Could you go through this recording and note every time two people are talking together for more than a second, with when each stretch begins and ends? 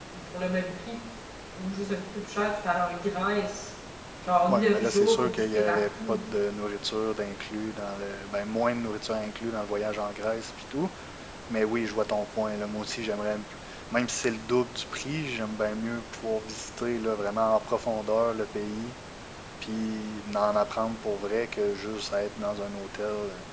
4.5-6.2

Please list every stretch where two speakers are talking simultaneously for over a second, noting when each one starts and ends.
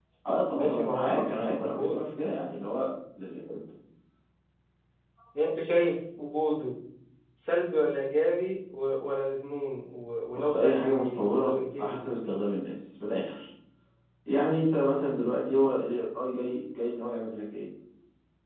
0.6-2.0, 10.4-12.1

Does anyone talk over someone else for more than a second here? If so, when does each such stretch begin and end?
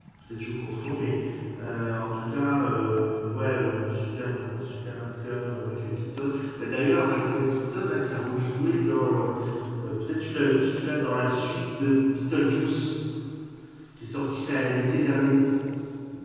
none

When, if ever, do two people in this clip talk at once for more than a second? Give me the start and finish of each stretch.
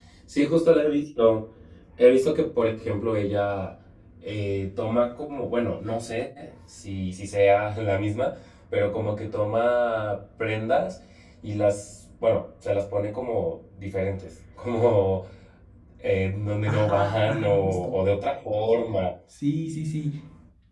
16.7-17.9

